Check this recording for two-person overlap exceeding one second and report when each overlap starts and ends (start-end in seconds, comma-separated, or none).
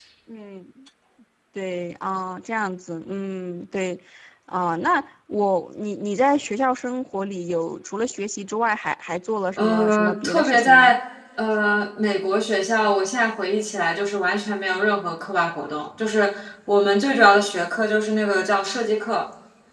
9.6-10.9